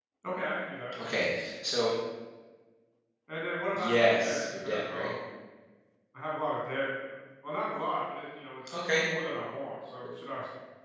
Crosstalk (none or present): present